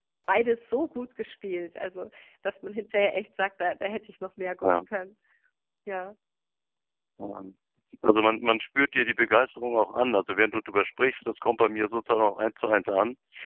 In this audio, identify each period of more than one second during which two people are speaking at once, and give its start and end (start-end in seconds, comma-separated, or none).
none